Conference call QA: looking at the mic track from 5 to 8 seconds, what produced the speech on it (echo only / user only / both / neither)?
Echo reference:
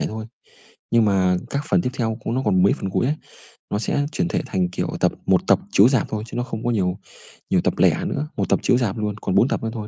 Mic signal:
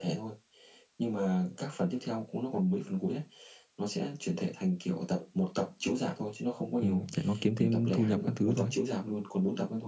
both